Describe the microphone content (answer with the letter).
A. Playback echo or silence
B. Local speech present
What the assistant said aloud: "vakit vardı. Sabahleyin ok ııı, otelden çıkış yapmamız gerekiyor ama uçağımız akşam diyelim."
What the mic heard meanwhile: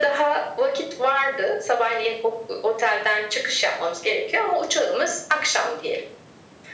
A